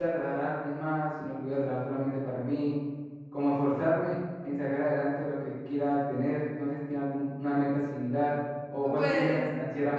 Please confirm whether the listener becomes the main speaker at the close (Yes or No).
Yes